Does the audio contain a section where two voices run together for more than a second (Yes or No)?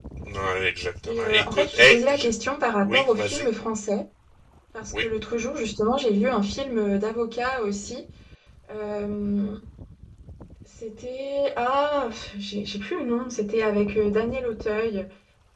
Yes